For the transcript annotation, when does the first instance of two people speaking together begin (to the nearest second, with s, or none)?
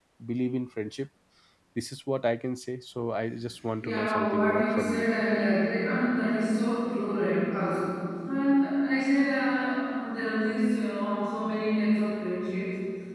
4 s